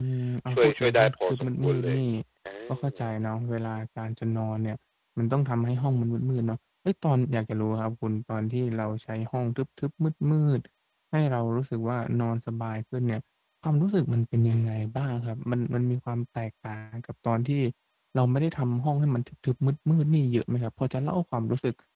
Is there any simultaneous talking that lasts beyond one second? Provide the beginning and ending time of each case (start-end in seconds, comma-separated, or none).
0.5-2.0